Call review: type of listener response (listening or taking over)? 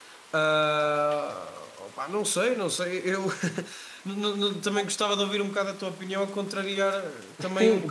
taking over